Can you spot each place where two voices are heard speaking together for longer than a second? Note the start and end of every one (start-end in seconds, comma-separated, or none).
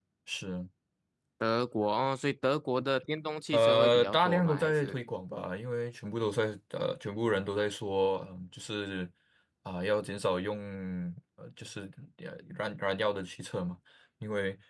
3.5-5.0